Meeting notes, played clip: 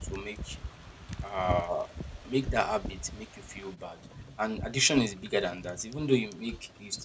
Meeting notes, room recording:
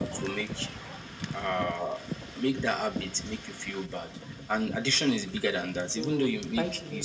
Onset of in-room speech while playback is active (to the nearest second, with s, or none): 6 s